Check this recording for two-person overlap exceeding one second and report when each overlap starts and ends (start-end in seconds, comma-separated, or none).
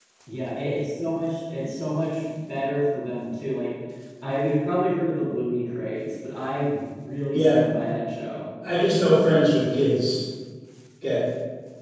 none